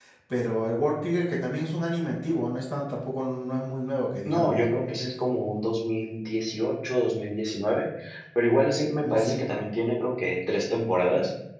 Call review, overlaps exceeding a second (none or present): none